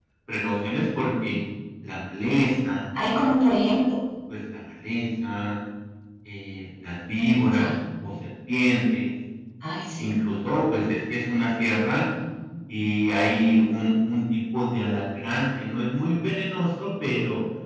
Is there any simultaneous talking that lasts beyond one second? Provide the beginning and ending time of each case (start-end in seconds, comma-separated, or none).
none